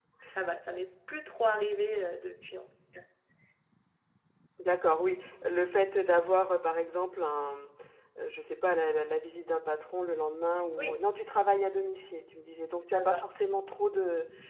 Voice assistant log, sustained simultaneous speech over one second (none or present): none